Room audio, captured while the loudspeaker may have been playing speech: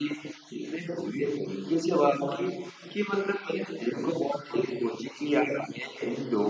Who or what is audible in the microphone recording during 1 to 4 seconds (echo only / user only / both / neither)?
echo only